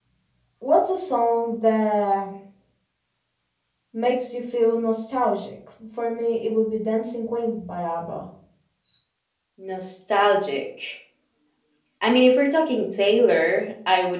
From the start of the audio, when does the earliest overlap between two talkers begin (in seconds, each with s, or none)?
none